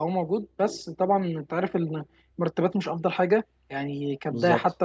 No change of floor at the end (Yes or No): No